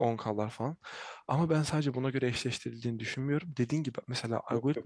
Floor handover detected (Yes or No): No